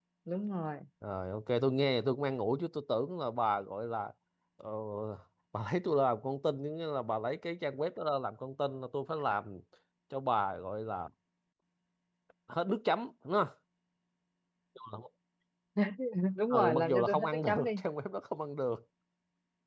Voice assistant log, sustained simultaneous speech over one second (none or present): present